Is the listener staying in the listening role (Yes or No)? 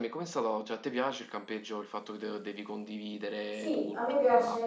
No